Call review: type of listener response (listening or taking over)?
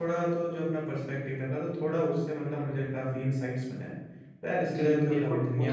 taking over